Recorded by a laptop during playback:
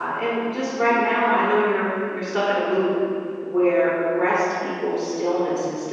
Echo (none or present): none